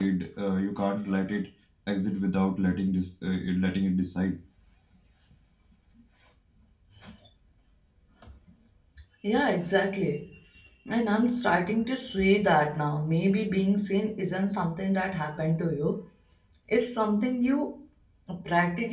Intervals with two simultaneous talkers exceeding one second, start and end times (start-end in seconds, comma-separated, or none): none